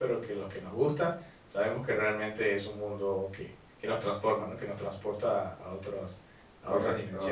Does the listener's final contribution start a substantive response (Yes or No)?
Yes